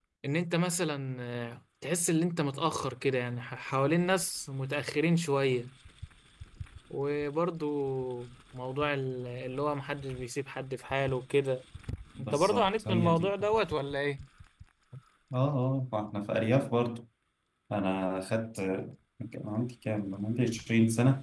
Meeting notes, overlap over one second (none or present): present